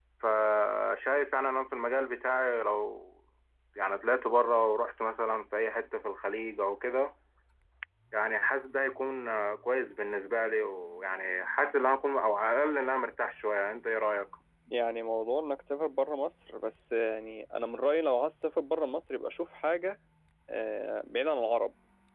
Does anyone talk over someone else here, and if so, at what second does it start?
none

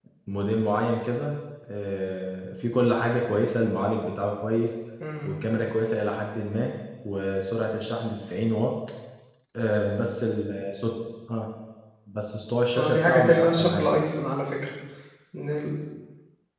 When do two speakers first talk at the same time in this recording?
12.8 s

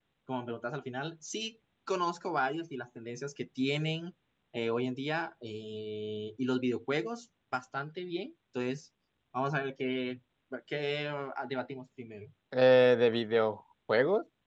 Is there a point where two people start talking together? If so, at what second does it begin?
none

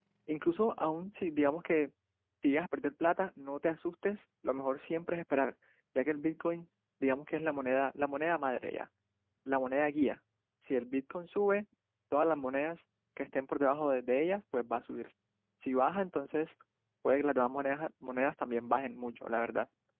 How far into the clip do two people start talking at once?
none

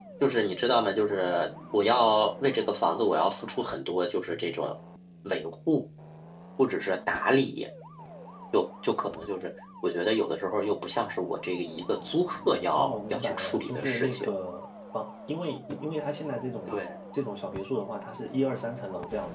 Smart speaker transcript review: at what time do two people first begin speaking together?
12.8 s

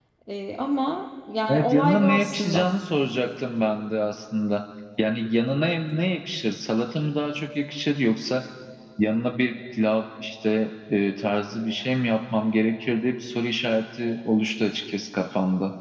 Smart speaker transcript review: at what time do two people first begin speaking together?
1.5 s

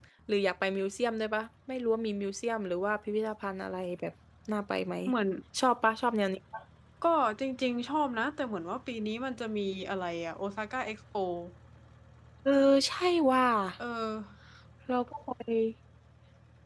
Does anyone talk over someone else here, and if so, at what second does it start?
none

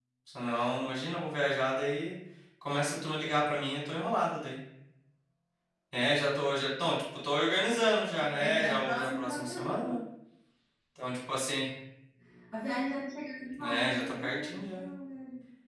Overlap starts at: 8.1 s

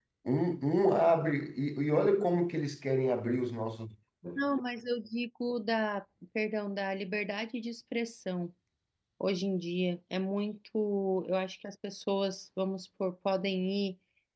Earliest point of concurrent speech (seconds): none

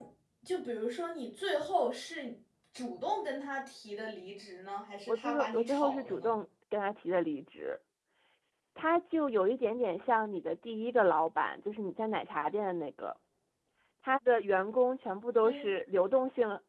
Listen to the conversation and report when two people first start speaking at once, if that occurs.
5.1 s

